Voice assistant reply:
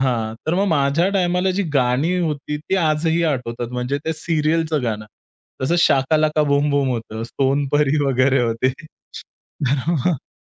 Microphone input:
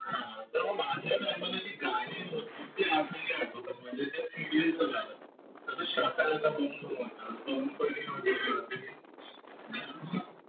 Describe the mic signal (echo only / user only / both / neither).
echo only